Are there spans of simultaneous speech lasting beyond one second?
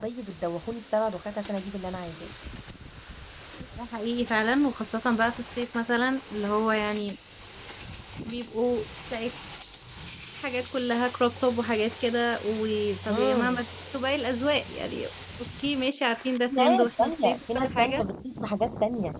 Yes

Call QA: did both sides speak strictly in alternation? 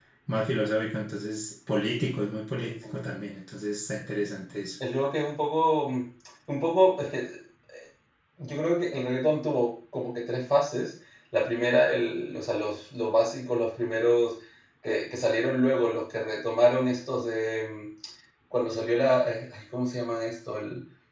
Yes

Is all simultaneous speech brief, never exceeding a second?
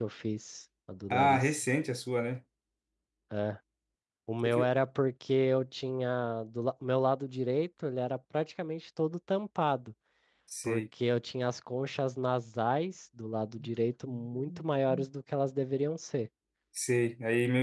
Yes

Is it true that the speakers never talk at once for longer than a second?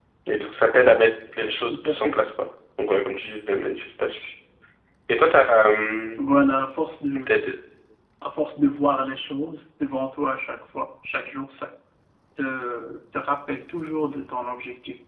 Yes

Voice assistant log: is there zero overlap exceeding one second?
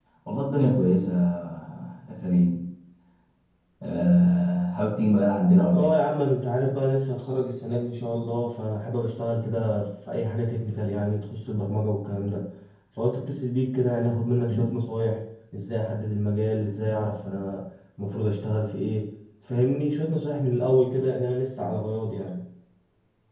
Yes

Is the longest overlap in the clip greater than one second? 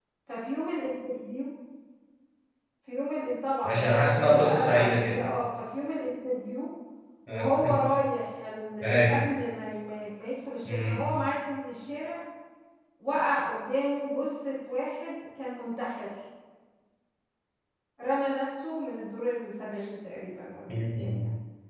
Yes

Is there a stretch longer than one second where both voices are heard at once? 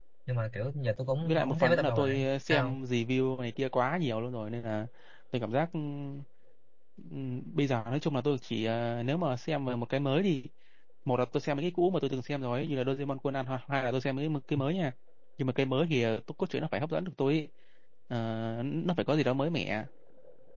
Yes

